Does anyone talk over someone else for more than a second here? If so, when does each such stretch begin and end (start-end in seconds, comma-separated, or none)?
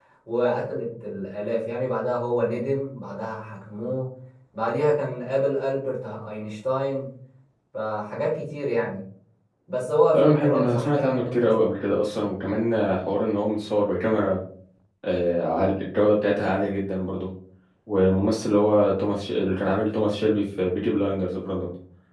10.1-11.6